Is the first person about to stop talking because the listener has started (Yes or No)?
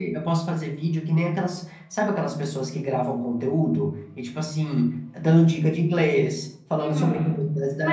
Yes